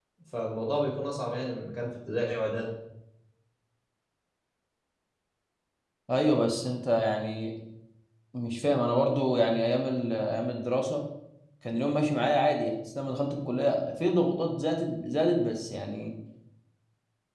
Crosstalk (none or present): none